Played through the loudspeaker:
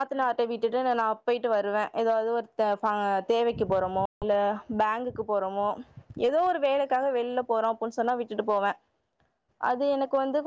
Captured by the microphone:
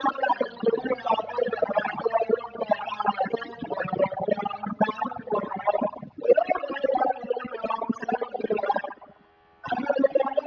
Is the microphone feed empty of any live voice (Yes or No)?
Yes